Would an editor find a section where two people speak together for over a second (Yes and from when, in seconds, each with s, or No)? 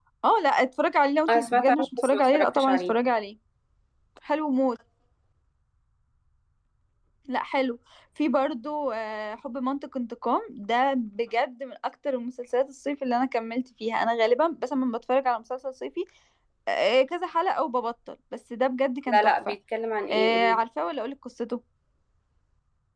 Yes, from 1.3 s